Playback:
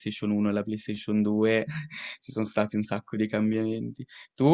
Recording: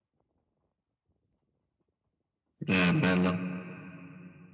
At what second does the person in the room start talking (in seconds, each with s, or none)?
2.7 s